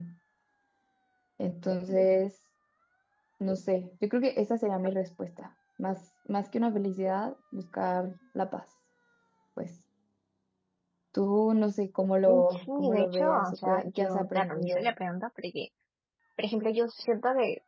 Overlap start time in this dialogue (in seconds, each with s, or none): 12.3 s